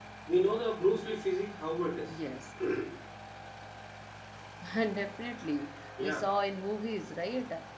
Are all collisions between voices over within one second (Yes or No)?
Yes